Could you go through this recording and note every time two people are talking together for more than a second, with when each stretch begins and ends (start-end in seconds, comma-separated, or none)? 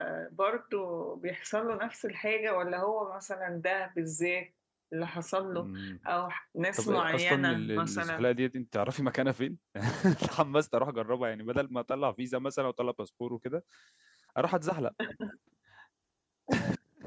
6.8-8.3